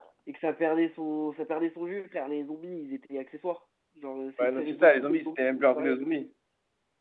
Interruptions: present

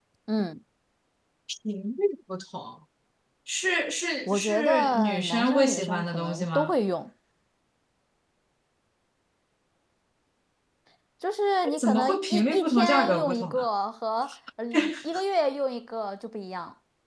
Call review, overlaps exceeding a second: present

